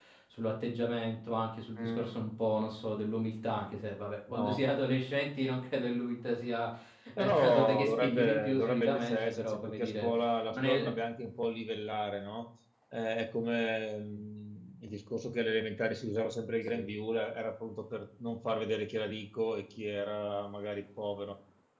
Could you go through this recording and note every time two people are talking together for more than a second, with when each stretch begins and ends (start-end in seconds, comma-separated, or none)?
7.2-10.1